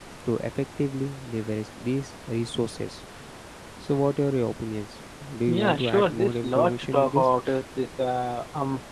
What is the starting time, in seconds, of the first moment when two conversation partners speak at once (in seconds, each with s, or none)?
5.5 s